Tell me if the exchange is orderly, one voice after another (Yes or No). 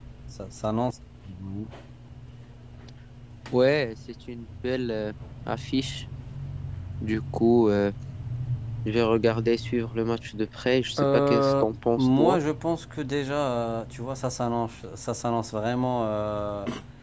No